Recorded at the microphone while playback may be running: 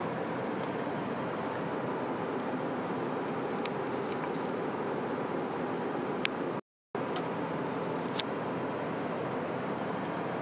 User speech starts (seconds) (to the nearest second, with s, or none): none